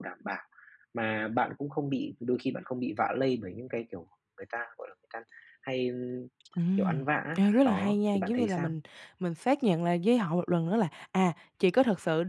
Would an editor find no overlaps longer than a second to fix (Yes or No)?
No